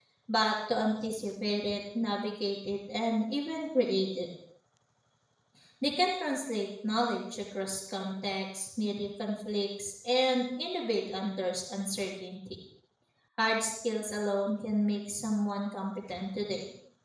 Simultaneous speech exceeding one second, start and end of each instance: none

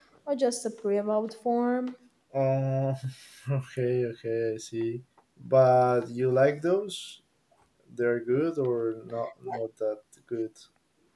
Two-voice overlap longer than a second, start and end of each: none

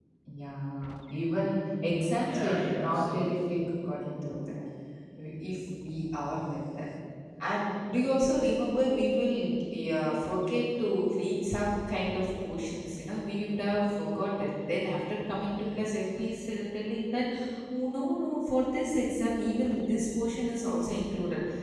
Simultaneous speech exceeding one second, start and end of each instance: 2.1-3.6

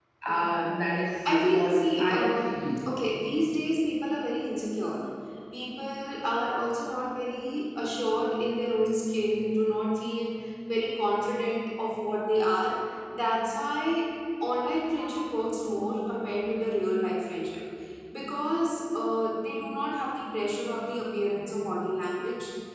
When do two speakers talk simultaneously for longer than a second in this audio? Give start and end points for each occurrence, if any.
1.3-2.6

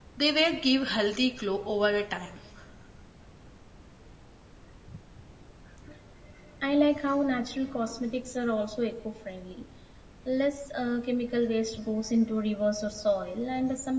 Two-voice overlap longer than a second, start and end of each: none

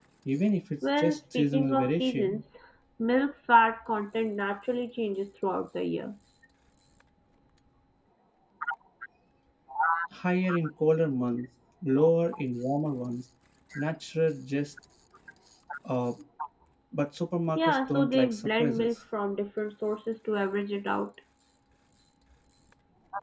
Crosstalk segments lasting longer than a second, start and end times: 1.0-2.4, 17.6-18.9

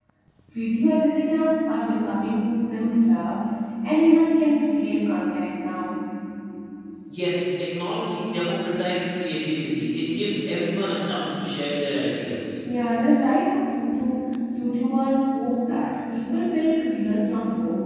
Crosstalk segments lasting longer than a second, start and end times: none

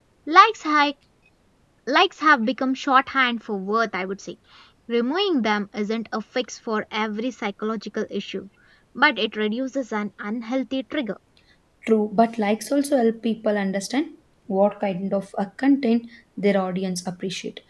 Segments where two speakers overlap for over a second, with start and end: none

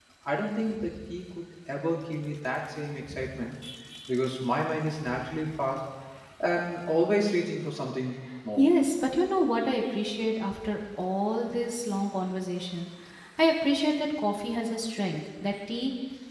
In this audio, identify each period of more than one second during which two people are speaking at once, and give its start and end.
none

